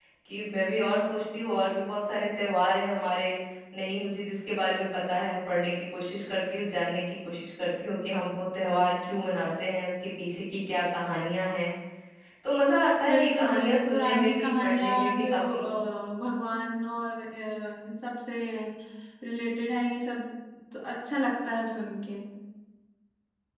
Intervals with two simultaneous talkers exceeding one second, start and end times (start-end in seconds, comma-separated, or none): 13.1-15.6